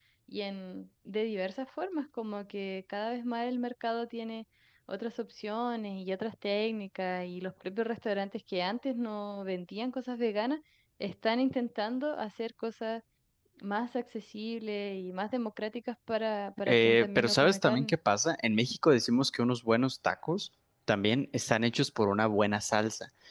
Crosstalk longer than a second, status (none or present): present